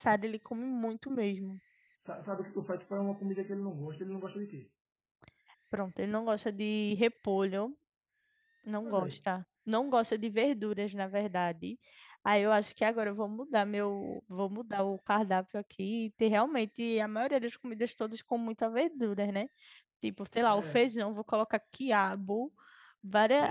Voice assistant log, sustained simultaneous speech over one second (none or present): none